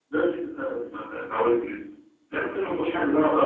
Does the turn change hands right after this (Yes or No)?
No